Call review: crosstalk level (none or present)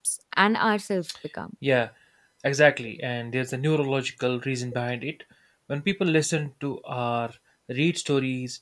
none